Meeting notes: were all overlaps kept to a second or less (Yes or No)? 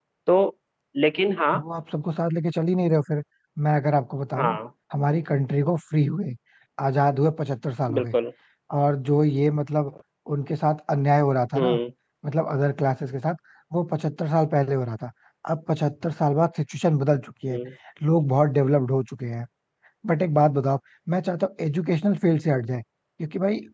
Yes